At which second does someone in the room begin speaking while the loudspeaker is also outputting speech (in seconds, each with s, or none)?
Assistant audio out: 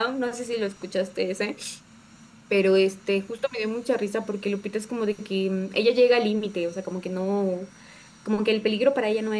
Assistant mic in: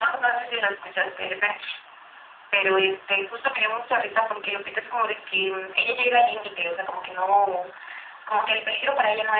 none